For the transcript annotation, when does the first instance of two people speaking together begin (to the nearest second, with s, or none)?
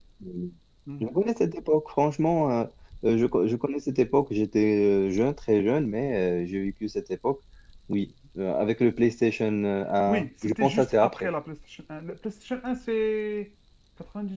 10 s